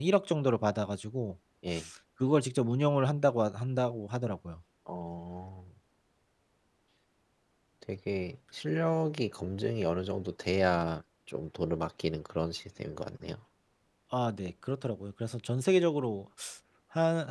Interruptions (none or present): none